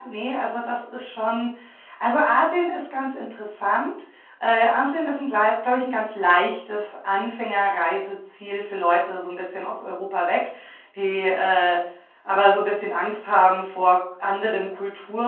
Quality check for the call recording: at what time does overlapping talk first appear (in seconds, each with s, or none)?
none